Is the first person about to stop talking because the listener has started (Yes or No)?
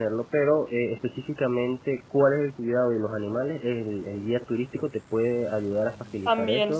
Yes